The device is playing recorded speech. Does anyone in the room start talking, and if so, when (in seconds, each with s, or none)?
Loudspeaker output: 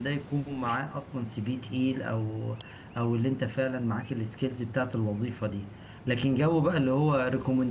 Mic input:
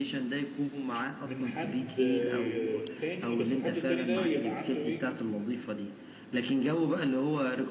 1.2 s